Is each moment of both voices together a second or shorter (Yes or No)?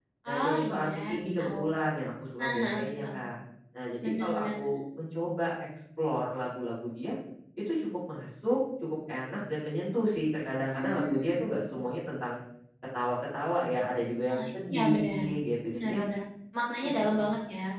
No